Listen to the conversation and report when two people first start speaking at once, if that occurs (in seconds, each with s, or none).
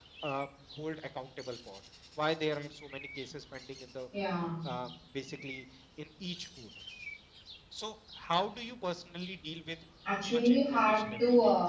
10.1 s